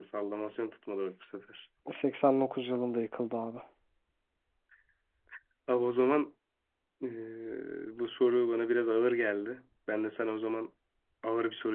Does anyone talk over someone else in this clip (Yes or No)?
No